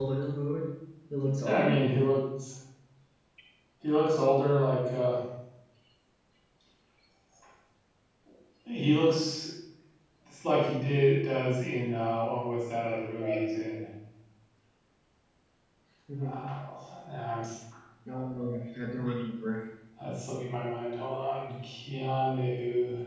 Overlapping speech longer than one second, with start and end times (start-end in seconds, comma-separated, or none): none